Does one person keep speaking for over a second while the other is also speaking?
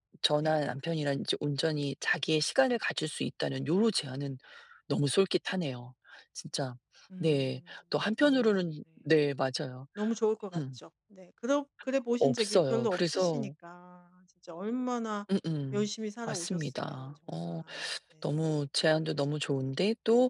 Yes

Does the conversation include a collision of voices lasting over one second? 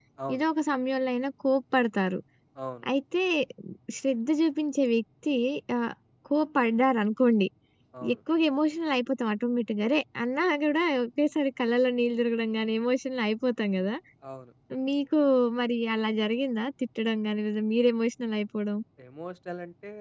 No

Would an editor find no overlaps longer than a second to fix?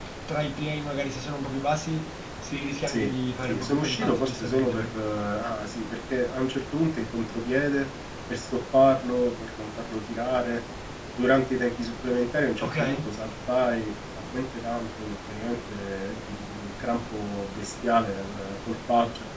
No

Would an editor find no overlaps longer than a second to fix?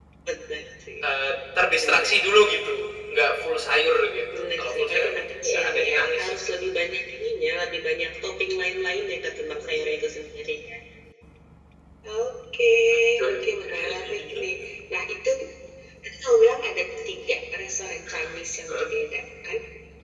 No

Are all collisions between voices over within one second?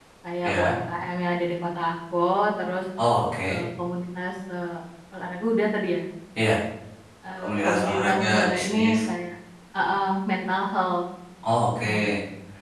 No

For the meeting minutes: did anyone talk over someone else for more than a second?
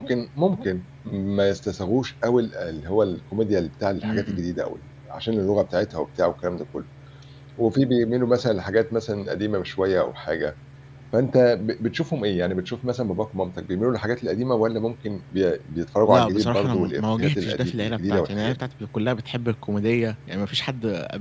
Yes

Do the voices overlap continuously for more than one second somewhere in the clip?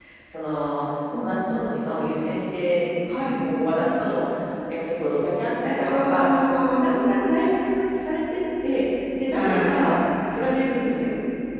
No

